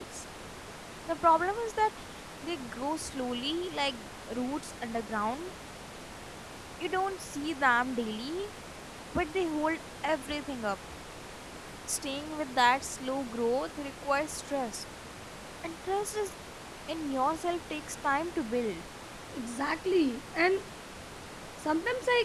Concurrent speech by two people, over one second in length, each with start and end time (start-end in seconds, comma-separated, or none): none